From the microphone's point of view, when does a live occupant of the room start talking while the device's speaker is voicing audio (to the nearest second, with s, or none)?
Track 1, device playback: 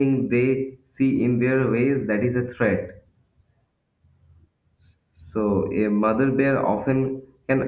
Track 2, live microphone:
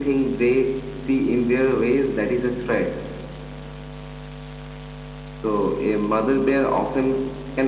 none